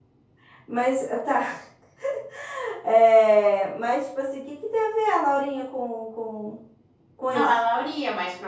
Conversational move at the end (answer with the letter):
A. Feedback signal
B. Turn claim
B